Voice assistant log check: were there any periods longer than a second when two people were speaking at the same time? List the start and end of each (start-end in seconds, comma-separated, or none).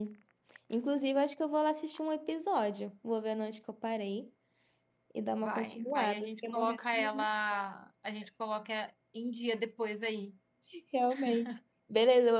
5.4-7.1